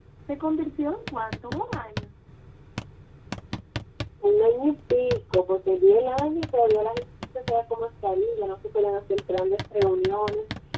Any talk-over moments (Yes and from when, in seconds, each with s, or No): No